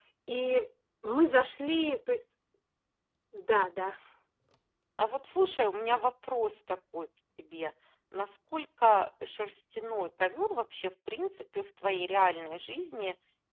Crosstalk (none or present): none